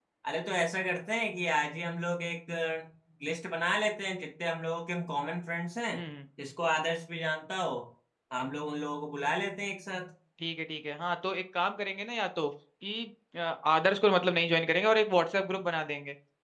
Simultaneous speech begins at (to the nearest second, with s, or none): none